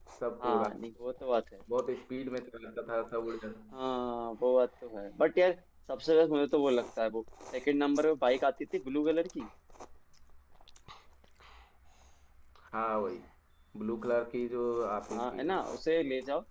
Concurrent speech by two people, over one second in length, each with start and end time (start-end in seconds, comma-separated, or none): none